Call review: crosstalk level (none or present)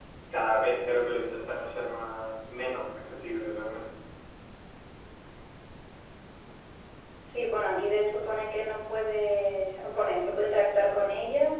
none